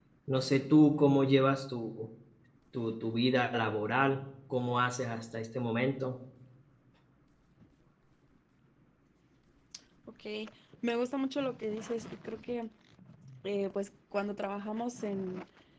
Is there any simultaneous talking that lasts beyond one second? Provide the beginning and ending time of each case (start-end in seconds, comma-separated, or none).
none